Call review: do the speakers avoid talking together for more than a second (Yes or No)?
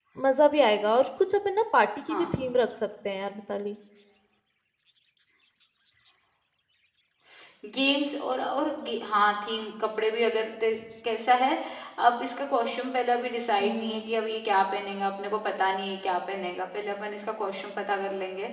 Yes